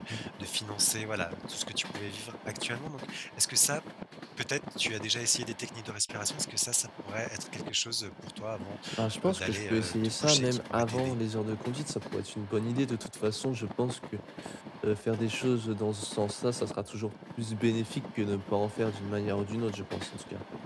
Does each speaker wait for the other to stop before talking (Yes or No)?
No